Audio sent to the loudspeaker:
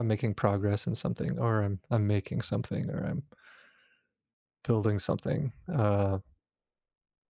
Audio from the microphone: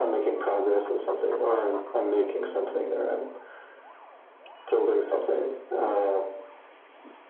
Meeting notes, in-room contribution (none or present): none